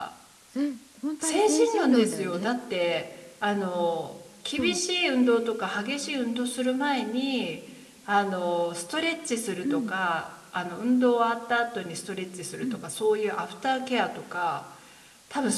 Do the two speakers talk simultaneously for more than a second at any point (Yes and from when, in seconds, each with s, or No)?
Yes, from 1.2 s